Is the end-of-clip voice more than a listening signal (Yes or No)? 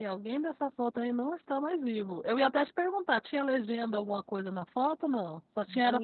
Yes